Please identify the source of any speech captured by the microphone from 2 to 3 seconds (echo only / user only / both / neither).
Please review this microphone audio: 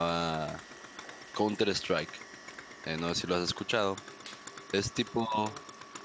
user only